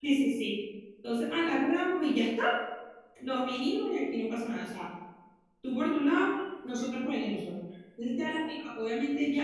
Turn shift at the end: No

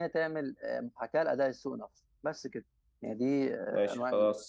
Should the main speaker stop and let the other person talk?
Yes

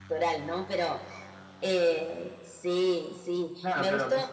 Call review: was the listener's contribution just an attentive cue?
No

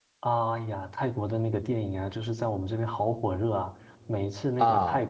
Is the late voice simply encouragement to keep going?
Yes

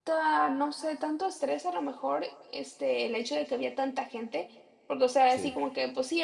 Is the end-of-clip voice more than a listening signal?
No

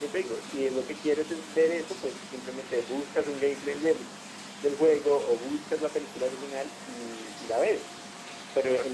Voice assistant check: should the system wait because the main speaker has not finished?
Yes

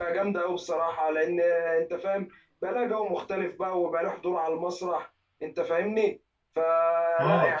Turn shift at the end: No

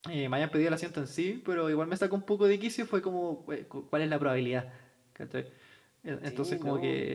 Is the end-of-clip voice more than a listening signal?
Yes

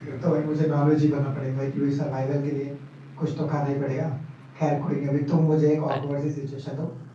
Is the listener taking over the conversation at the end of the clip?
No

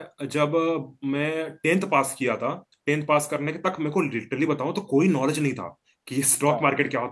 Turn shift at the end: No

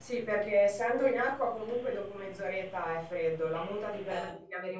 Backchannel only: Yes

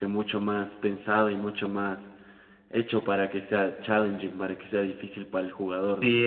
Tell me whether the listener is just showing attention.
No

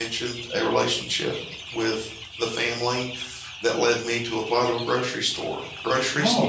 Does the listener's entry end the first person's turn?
No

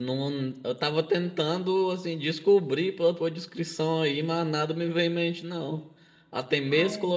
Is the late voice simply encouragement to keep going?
Yes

